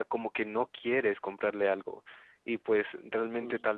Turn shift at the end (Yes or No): No